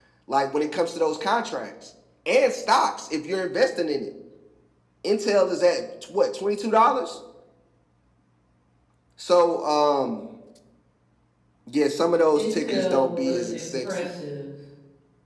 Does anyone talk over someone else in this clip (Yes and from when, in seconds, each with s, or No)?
Yes, from 12.3 s